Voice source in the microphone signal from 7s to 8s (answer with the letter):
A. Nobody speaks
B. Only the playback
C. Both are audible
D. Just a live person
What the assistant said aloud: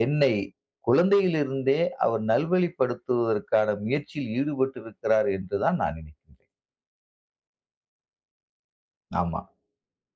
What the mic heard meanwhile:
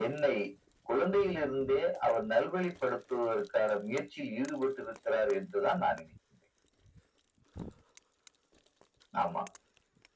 A